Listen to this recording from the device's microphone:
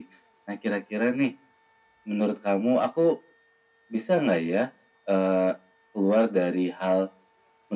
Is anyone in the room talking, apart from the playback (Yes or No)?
No